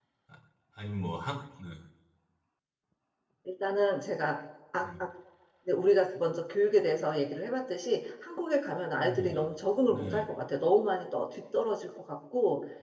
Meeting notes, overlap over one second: none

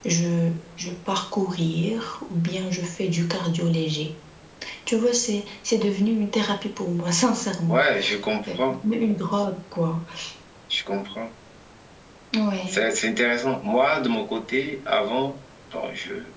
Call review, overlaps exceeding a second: none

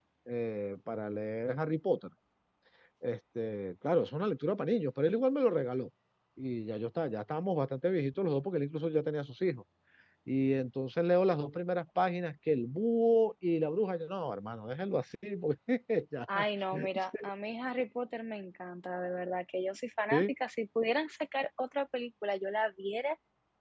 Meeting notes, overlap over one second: none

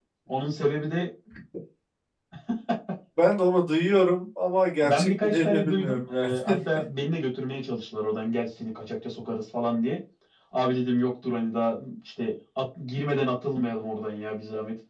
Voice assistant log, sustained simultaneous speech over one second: present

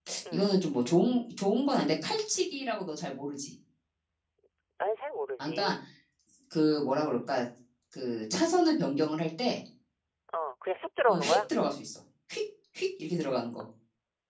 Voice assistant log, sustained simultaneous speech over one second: none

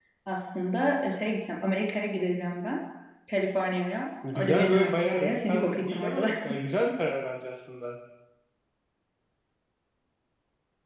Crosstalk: present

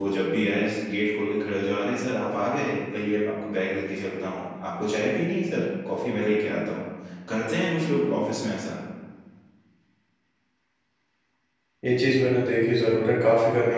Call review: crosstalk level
none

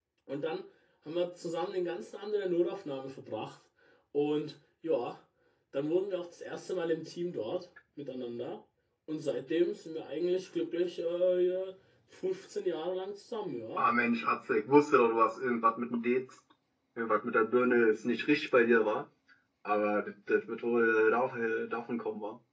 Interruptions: none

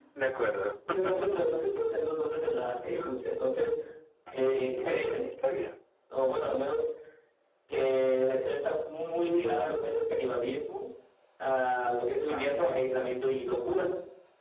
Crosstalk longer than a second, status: none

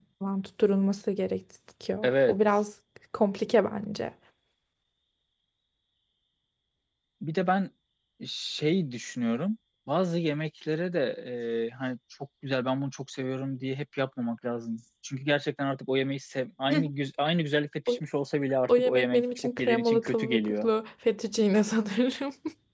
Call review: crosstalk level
present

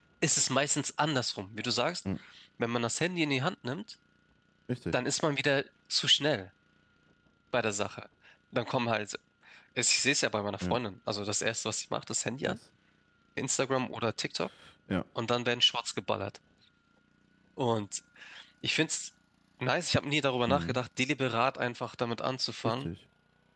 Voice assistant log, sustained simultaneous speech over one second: none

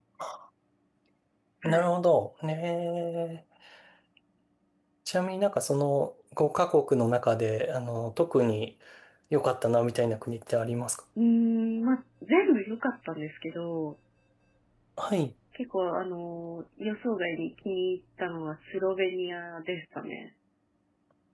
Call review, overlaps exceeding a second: none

